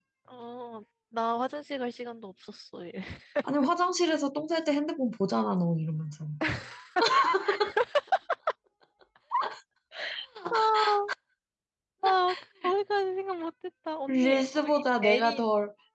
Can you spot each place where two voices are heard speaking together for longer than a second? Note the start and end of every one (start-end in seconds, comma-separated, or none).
14.1-15.4